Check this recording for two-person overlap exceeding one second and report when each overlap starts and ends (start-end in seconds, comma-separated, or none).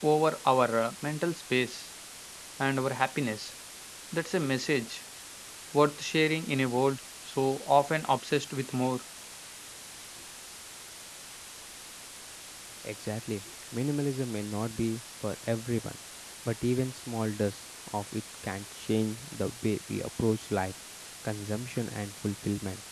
none